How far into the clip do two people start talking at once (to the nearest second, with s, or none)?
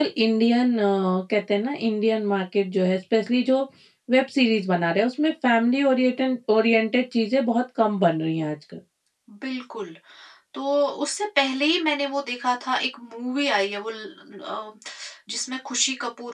none